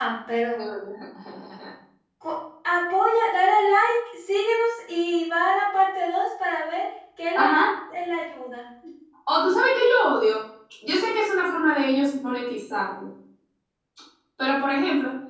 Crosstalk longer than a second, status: none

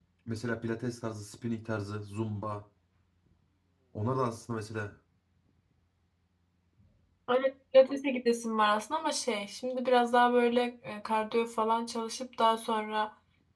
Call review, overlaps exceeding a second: none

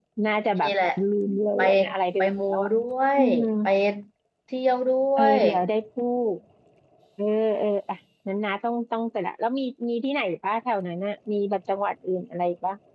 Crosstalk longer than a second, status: none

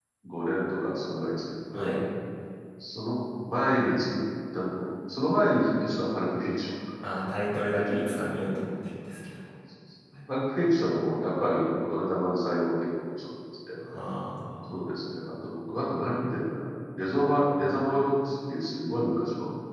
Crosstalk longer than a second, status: none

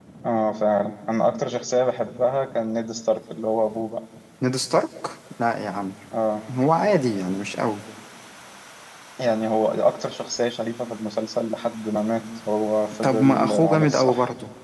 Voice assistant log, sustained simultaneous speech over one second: present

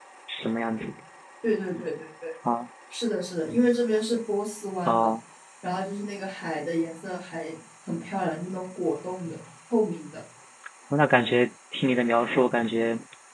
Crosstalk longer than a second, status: none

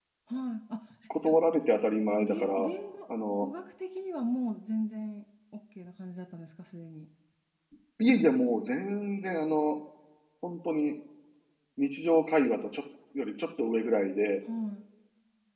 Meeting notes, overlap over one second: none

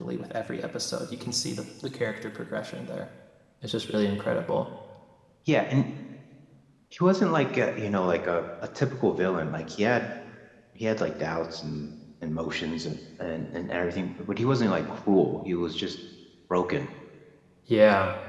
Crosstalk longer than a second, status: none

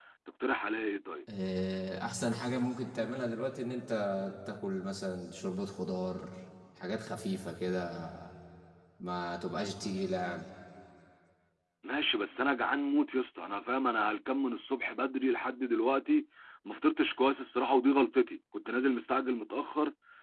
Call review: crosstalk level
none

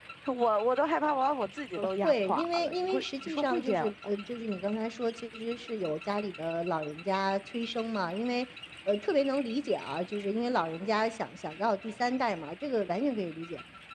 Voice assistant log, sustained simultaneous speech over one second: present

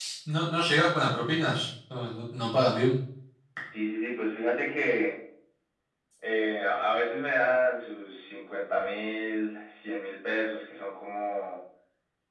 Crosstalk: none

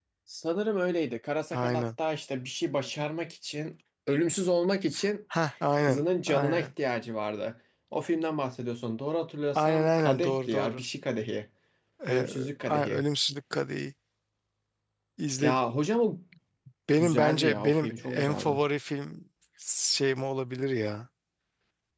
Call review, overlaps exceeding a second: present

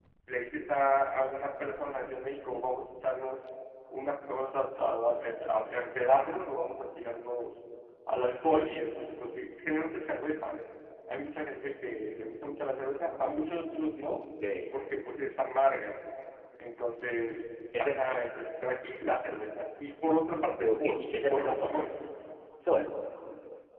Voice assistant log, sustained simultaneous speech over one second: present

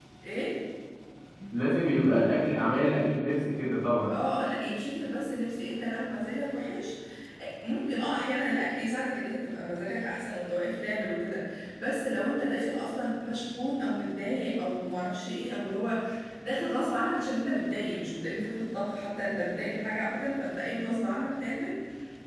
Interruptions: none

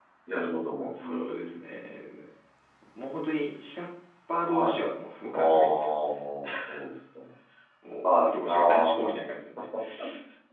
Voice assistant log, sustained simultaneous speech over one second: present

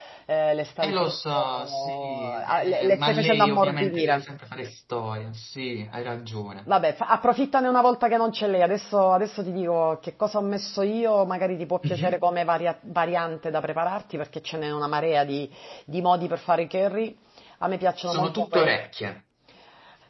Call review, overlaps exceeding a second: present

